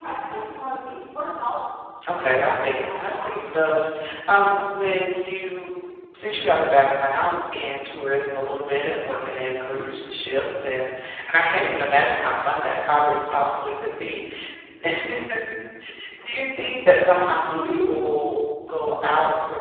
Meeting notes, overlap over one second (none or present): present